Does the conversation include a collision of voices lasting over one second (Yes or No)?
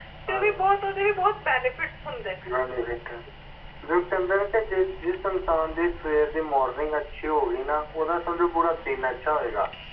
No